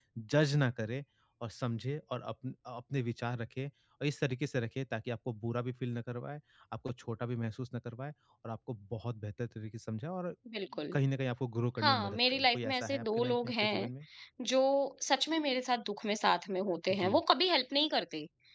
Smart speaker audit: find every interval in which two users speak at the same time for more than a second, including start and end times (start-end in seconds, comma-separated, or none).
11.8-13.9